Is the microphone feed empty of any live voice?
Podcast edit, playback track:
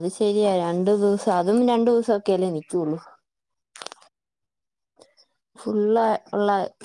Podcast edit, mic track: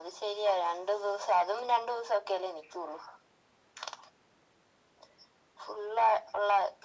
Yes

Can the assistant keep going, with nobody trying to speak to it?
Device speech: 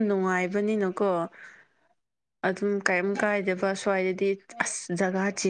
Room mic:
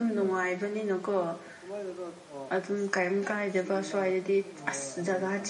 No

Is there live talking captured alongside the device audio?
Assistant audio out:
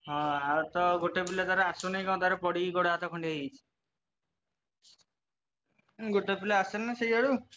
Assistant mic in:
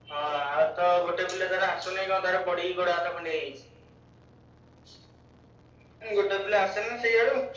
No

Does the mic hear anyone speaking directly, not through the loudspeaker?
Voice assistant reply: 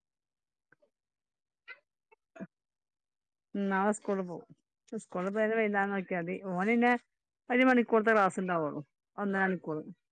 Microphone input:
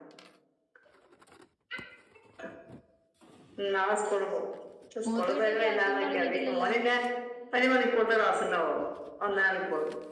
Yes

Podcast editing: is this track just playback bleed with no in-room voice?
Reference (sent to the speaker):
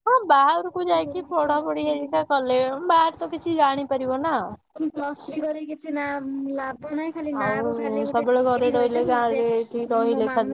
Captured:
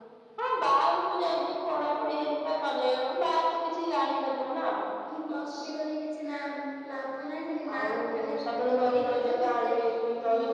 No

